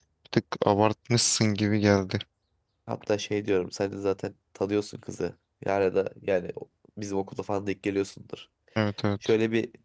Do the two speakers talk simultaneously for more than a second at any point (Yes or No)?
No